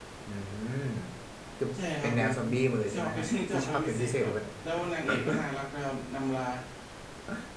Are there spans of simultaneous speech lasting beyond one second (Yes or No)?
Yes